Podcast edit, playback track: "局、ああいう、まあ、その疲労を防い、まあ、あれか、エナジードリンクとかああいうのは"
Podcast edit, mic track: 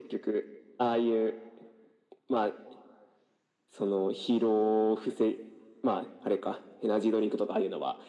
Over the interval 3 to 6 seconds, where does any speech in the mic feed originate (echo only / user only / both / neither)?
echo only